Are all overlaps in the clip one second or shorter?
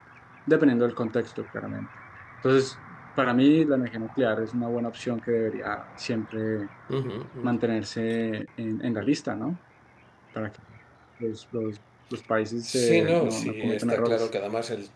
No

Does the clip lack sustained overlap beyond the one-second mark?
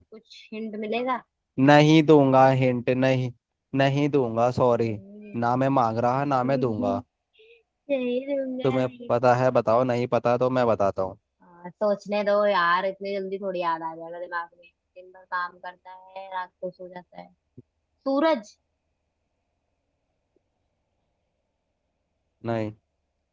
Yes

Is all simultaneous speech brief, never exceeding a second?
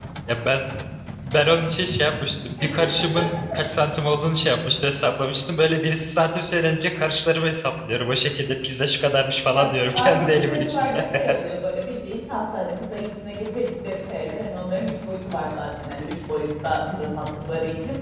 No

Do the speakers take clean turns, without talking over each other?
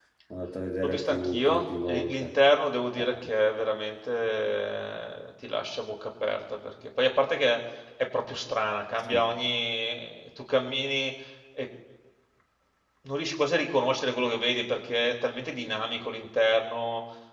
No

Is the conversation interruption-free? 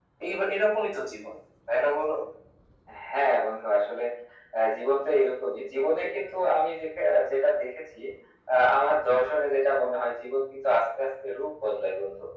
Yes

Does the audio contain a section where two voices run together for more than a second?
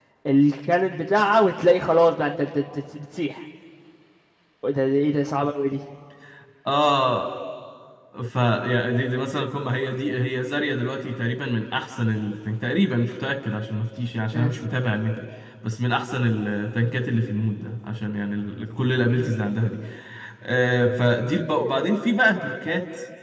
No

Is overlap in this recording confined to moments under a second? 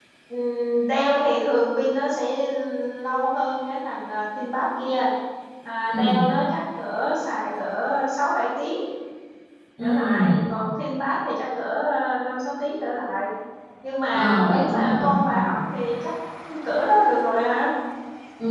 No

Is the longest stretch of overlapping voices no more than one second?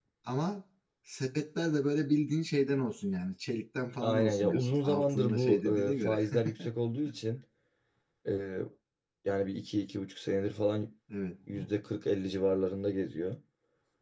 No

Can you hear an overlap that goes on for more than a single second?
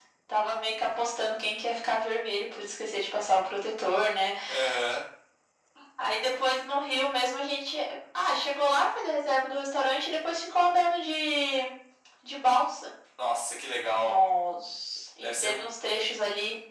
No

